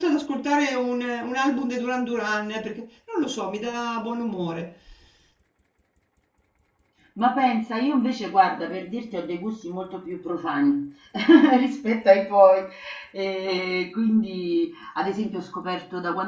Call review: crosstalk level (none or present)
none